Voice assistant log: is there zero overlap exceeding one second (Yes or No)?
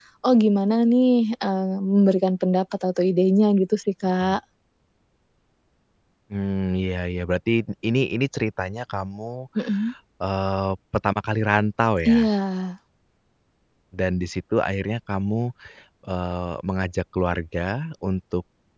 Yes